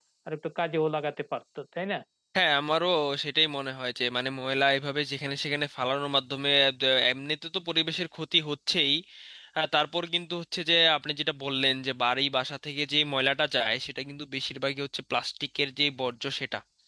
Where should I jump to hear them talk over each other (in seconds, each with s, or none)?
none